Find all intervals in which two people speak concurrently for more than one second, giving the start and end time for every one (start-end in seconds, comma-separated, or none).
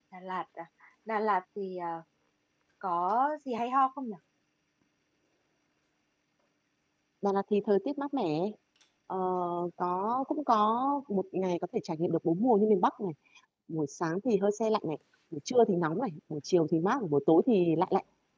none